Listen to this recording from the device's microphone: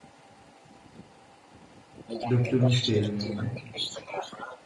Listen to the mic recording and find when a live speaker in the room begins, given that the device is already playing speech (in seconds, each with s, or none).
2.3 s